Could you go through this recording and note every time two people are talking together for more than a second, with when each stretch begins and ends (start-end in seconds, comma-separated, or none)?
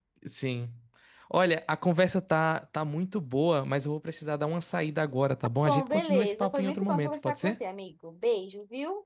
5.7-7.6